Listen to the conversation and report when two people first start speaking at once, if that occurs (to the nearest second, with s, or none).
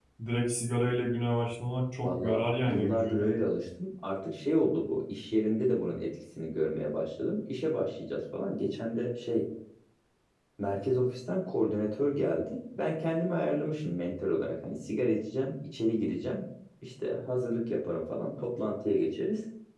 2 s